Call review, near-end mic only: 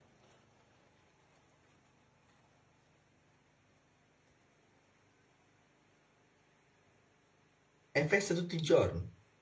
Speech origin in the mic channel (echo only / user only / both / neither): user only